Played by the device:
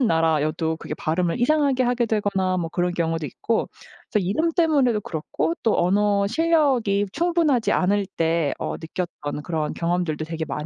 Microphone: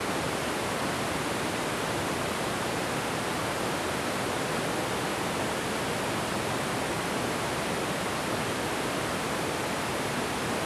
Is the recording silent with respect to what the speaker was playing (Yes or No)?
Yes